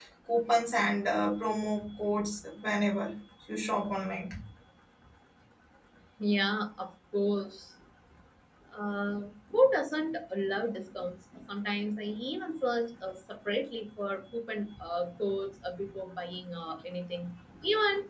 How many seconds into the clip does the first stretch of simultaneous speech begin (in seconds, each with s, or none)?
none